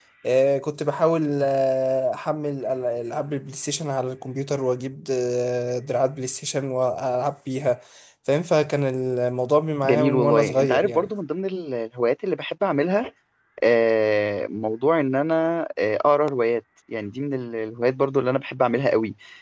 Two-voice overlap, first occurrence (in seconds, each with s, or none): 9.8 s